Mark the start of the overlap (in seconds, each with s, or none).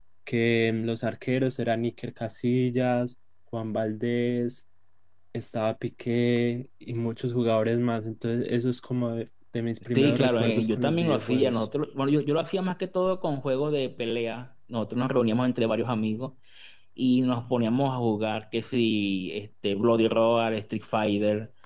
9.9 s